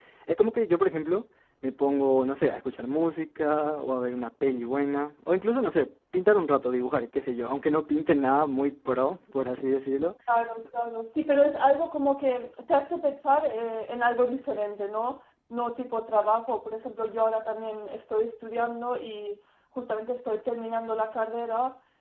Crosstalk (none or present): none